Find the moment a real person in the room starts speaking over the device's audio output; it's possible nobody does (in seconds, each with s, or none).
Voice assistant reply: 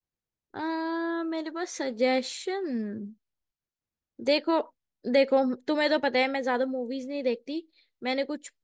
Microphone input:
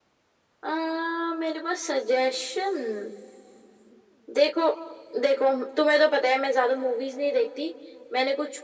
none